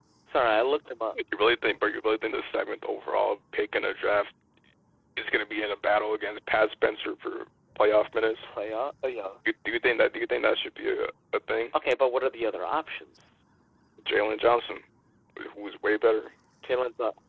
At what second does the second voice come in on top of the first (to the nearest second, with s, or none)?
none